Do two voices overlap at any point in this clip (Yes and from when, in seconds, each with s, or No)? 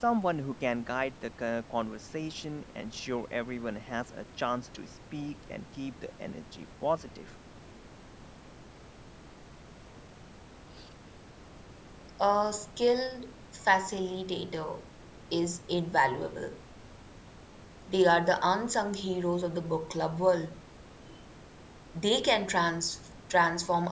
No